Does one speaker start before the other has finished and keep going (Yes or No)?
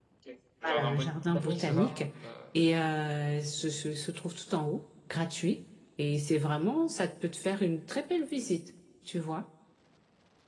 Yes